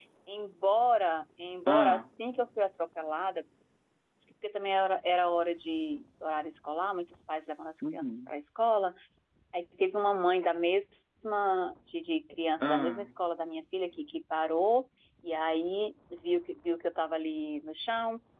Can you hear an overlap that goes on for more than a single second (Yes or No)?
No